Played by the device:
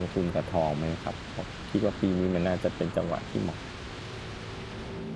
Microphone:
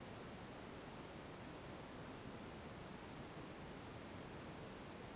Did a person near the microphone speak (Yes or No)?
No